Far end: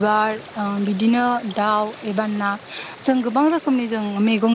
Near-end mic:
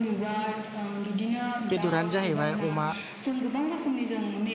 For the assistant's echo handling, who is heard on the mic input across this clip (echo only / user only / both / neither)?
both